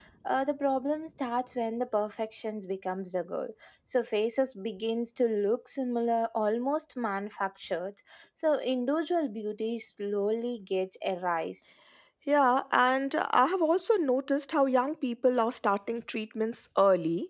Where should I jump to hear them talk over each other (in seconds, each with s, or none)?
none